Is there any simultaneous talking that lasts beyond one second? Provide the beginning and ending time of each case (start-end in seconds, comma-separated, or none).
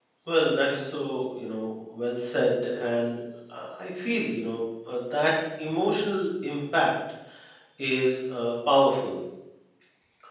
none